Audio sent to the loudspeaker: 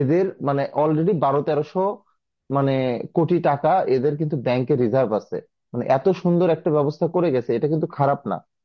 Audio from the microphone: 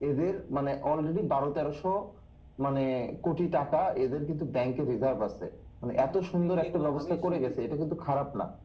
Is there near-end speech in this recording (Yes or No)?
Yes